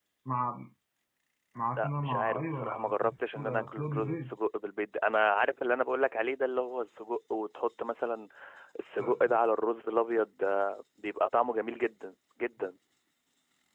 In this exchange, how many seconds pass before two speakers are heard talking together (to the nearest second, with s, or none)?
2 s